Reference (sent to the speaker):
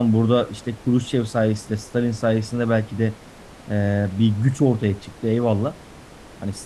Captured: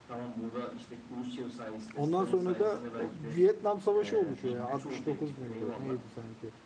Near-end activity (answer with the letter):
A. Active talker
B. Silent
A